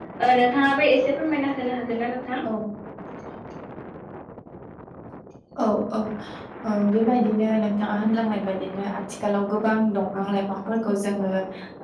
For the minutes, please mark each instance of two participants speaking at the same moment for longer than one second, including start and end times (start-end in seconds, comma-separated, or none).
none